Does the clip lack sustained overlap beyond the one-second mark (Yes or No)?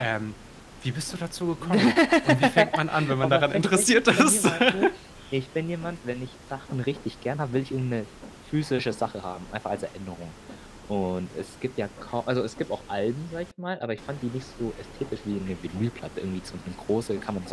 No